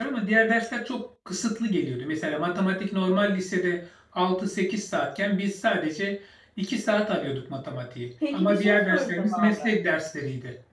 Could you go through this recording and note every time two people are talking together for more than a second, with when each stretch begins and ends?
8.3-9.7

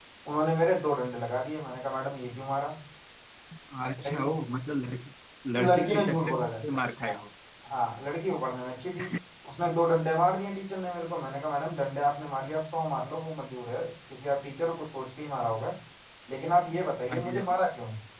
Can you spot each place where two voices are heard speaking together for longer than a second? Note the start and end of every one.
5.6-7.2

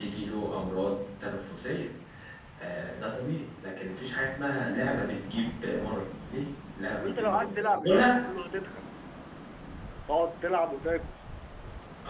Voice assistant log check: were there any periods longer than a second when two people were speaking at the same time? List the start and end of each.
6.9-8.1

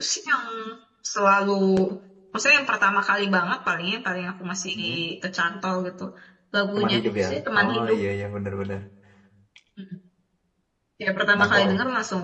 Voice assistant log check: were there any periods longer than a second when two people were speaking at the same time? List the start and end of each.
6.8-8.0

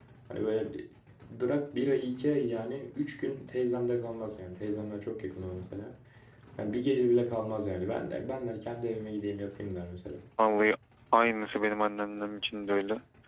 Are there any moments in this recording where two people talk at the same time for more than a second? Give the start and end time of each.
none

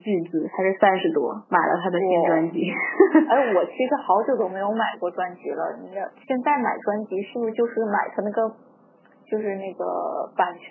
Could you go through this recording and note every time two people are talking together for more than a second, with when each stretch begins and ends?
none

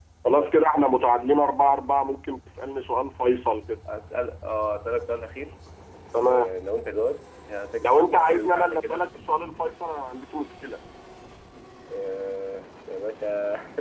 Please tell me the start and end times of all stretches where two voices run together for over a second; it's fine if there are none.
7.8-9.0

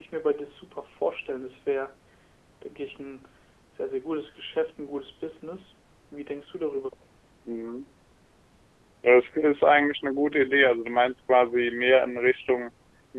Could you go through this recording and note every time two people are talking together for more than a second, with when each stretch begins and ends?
none

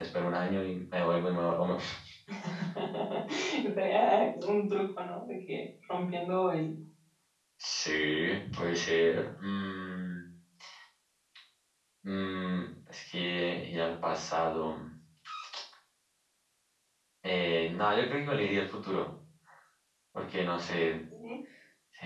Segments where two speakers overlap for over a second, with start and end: none

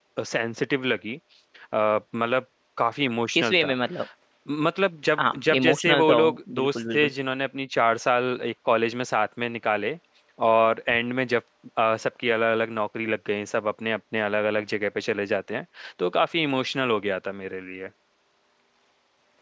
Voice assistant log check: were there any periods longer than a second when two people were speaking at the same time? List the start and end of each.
5.2-7.1

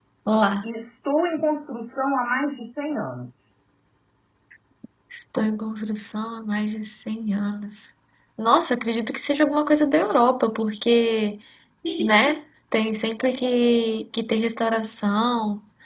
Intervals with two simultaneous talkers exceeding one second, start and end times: none

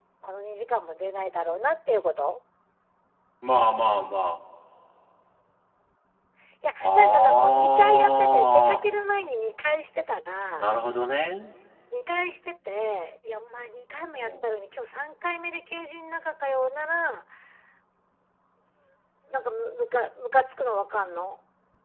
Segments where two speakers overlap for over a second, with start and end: 6.8-8.9

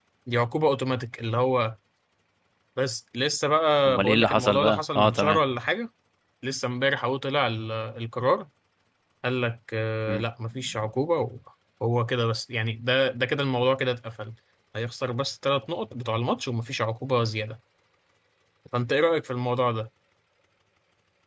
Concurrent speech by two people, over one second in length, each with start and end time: 3.8-5.4

